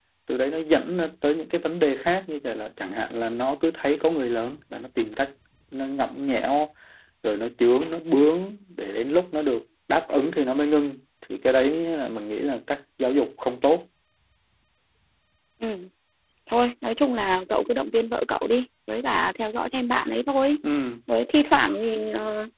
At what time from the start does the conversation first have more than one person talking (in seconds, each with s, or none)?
none